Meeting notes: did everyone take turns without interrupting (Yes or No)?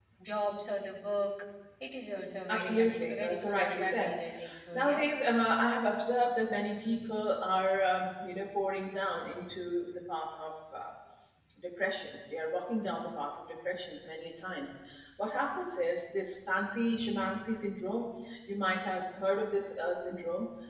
No